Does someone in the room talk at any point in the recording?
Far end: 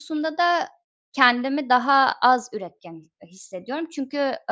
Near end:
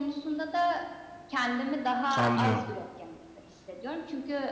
Yes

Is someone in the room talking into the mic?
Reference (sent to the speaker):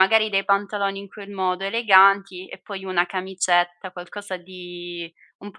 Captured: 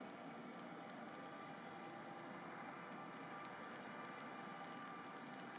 No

